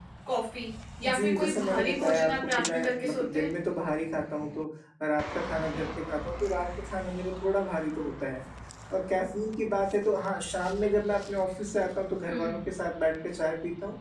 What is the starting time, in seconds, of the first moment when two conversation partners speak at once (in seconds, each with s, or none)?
1.0 s